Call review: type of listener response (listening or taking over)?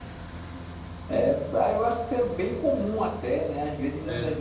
listening